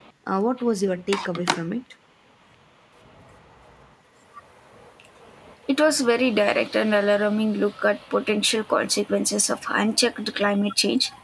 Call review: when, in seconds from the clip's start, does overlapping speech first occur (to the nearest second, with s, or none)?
none